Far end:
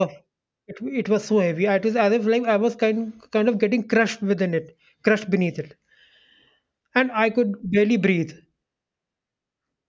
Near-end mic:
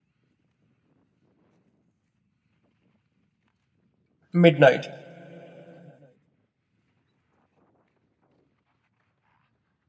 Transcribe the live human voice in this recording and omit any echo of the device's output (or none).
Midnight.